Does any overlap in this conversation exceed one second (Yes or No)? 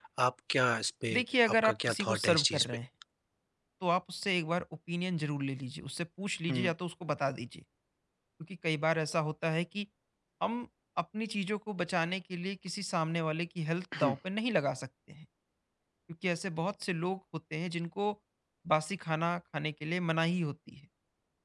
Yes